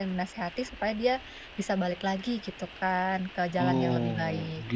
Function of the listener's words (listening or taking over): taking over